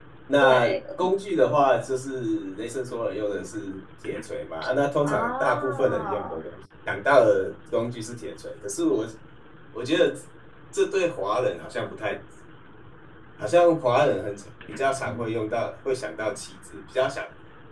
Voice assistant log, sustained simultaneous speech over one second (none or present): present